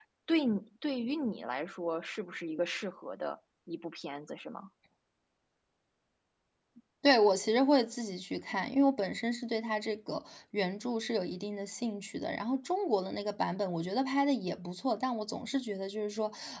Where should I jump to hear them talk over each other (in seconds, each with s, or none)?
none